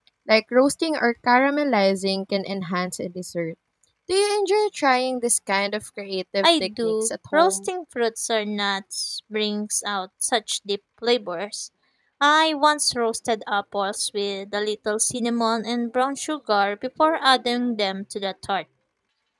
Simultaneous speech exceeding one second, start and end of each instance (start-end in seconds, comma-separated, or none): 6.4-7.7